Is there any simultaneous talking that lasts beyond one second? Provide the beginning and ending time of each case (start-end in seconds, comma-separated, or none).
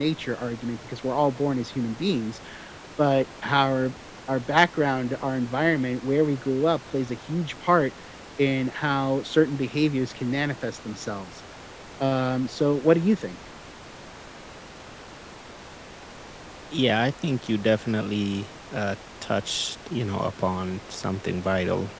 none